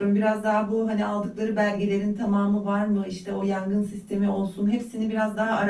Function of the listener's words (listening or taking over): listening